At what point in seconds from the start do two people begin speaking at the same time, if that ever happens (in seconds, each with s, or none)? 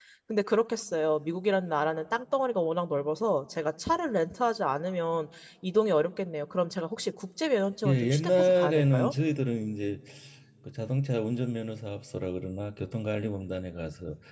7.8 s